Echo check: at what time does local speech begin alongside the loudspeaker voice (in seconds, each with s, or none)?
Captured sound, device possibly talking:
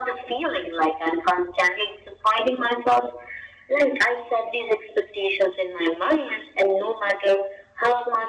none